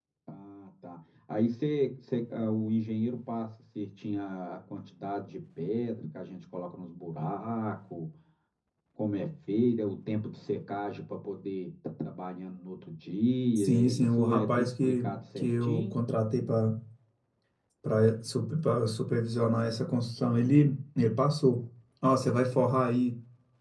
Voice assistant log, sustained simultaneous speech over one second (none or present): present